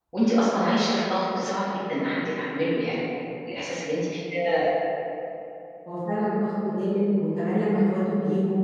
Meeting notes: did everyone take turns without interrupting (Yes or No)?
Yes